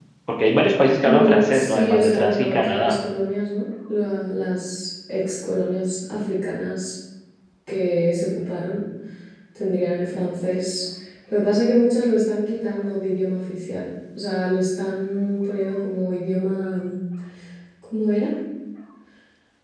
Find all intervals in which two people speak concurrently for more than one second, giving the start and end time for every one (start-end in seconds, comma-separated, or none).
1.0-2.9